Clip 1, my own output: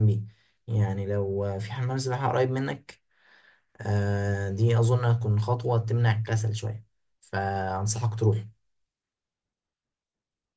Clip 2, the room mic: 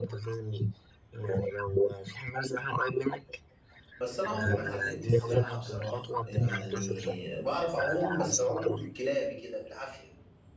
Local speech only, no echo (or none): بس انا عمري ما اتعلمت السباحة بصراحة يعني بعرف اعوم بس اعوم كلابي كده بالعافية